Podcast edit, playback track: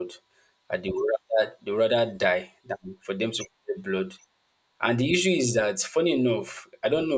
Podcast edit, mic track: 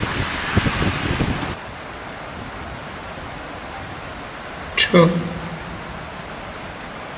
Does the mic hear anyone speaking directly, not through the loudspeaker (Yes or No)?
Yes